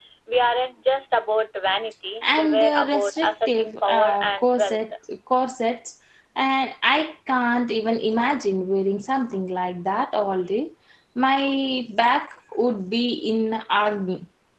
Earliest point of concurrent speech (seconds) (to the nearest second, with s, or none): 2 s